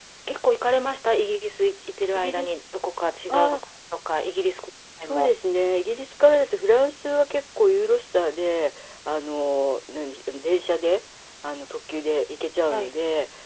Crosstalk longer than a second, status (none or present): none